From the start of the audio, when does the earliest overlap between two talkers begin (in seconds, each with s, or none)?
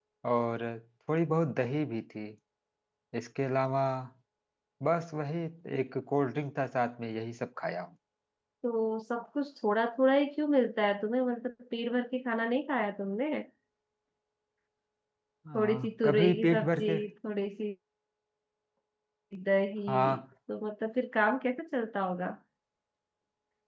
15.6 s